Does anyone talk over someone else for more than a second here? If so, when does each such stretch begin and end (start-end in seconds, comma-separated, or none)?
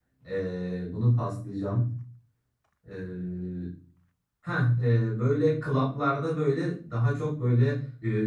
none